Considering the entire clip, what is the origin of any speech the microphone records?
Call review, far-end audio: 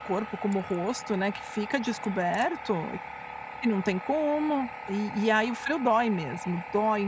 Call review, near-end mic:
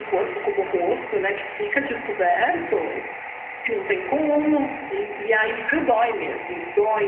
echo only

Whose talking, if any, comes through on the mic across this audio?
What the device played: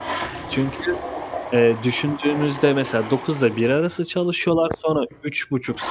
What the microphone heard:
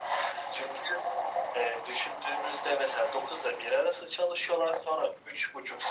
echo only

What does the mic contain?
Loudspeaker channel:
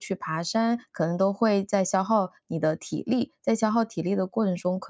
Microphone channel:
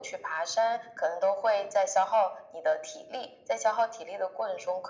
echo only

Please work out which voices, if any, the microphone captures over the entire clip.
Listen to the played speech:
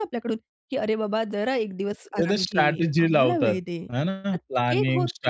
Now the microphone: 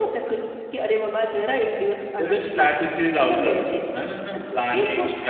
echo only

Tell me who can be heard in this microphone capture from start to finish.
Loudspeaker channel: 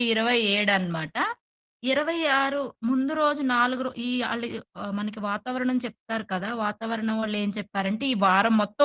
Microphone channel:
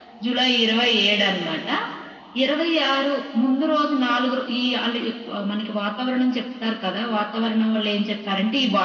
echo only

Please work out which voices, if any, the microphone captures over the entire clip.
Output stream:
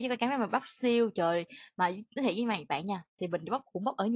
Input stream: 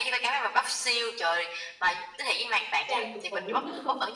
both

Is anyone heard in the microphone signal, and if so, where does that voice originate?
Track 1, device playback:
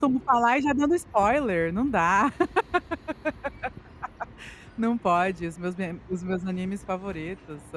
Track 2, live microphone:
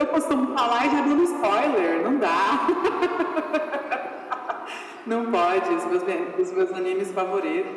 echo only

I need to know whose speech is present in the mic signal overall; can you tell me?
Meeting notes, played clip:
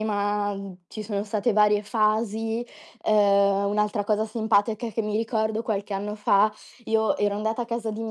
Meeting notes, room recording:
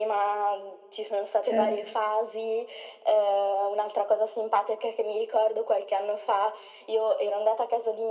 both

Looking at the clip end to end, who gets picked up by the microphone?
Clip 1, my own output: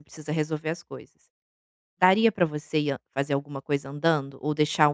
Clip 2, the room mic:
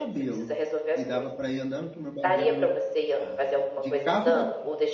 both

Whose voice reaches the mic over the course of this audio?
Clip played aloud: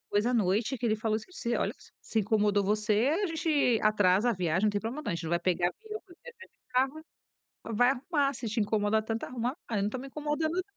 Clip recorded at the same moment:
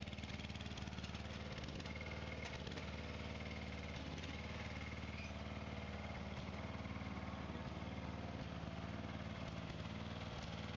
neither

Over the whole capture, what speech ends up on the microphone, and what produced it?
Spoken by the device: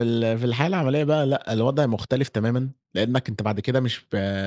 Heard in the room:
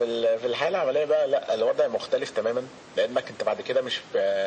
echo only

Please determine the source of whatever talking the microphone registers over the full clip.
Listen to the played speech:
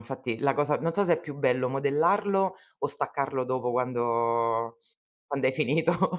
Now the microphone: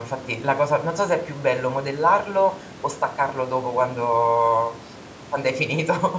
echo only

